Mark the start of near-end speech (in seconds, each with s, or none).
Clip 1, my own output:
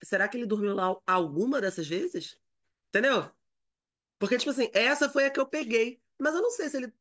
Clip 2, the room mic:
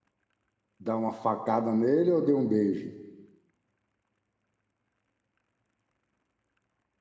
0.8 s